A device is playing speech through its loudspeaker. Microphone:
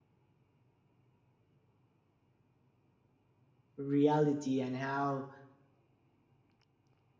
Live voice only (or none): reality and how